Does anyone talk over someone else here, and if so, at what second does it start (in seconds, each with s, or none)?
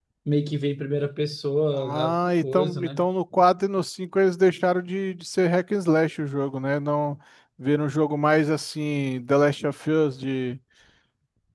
1.7 s